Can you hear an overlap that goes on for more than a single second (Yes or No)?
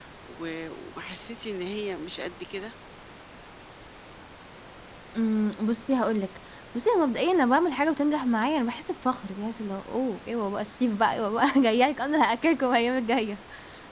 No